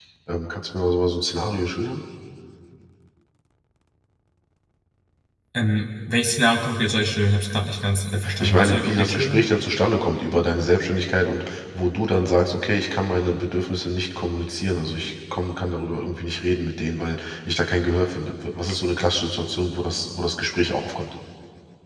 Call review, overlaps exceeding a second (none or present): present